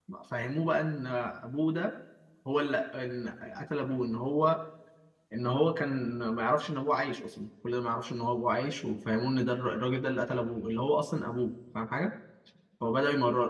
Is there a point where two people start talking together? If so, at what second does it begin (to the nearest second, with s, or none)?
none